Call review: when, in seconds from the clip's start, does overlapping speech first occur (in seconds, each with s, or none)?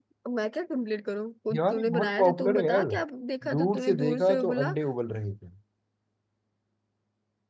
1.5 s